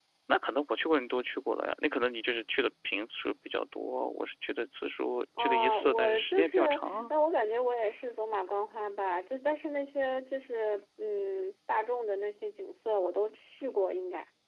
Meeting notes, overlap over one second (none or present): present